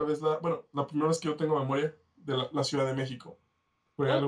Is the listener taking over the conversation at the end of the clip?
Yes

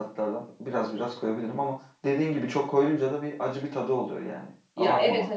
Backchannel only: No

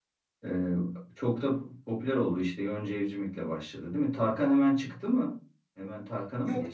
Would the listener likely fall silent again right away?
No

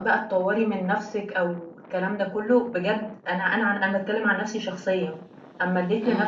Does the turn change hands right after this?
No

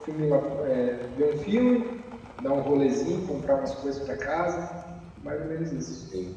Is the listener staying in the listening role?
No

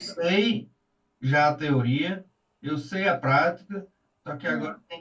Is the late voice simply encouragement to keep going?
Yes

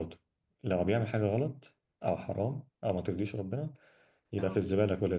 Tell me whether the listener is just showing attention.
Yes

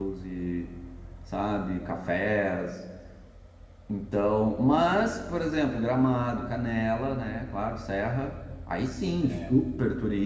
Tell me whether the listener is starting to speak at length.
No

